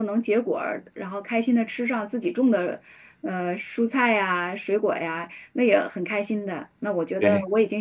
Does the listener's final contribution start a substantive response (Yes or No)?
No